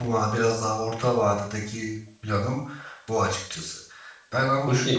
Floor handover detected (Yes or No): No